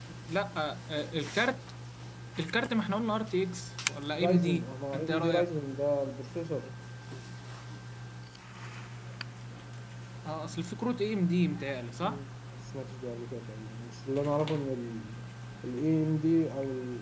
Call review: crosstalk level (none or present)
present